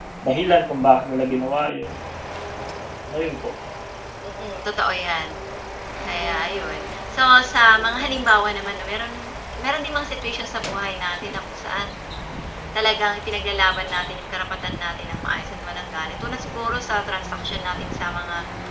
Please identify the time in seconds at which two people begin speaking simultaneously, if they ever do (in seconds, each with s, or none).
none